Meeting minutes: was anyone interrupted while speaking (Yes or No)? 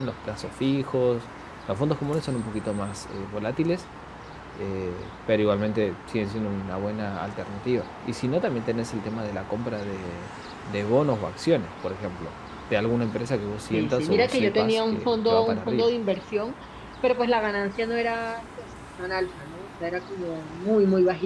Yes